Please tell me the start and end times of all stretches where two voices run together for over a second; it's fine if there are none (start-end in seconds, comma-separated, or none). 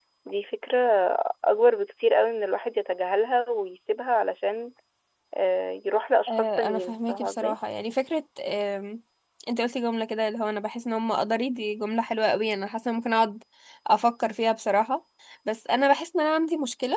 6.3-7.6